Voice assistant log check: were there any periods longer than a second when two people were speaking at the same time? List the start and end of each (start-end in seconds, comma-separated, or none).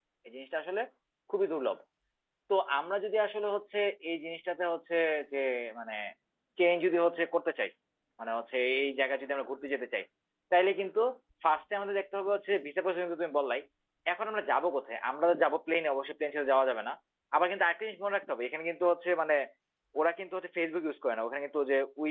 none